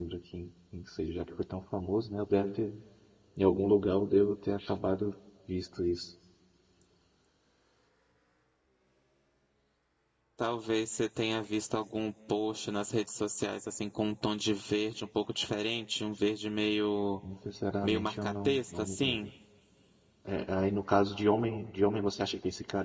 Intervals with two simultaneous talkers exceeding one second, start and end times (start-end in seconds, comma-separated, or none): 17.8-19.2